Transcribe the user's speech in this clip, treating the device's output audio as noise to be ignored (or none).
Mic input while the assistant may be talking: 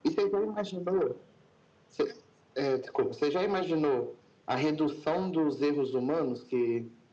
none